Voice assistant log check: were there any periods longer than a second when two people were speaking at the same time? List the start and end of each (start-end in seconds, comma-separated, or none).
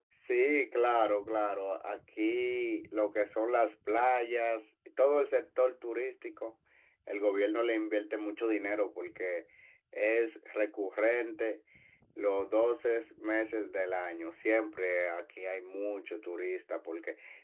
none